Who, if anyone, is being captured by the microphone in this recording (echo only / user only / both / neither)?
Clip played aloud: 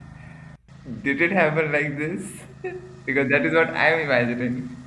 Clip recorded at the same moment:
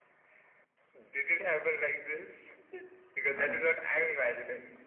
both